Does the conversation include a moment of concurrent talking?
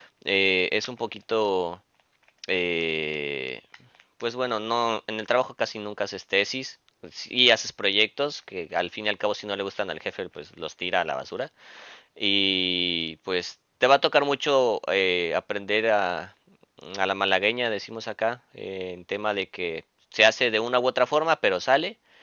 No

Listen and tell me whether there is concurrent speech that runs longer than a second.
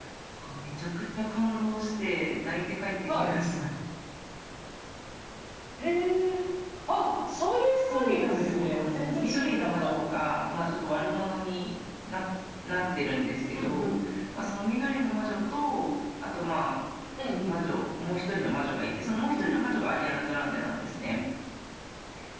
Yes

